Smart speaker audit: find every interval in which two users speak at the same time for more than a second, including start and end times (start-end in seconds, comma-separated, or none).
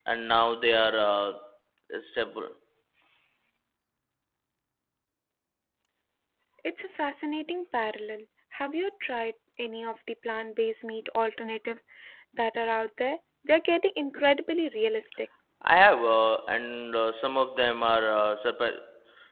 none